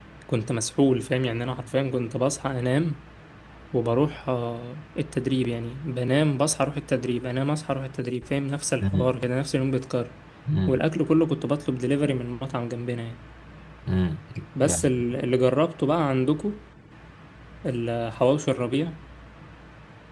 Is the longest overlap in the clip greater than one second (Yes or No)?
No